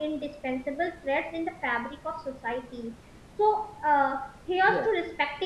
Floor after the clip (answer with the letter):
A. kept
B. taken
A